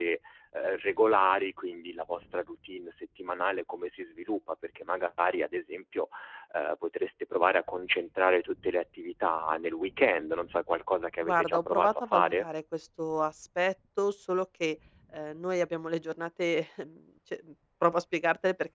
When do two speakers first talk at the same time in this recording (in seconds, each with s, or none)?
11.2 s